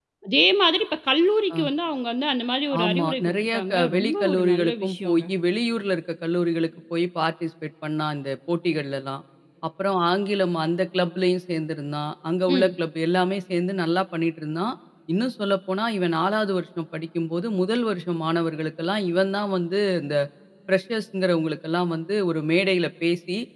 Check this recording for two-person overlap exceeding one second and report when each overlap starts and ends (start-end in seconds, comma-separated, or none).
2.8-5.2